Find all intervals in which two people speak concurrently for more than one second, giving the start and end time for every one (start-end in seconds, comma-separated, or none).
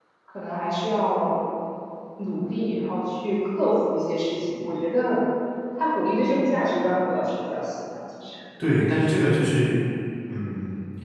none